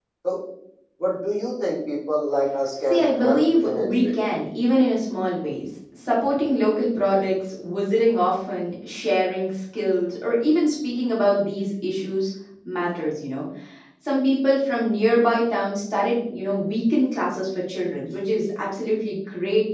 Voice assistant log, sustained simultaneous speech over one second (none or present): present